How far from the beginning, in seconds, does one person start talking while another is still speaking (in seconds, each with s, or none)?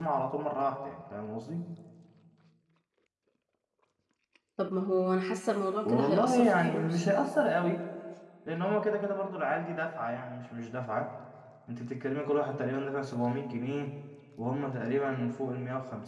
5.8 s